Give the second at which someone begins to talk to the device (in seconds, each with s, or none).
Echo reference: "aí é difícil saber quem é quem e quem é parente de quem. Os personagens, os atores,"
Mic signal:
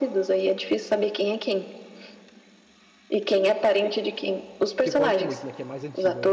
4.8 s